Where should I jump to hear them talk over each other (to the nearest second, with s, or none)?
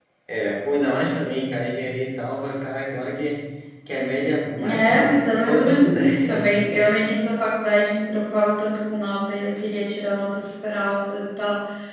5 s